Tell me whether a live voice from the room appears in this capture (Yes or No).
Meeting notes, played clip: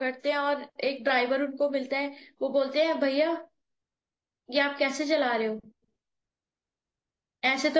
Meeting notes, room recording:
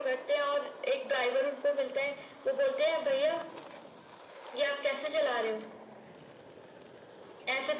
No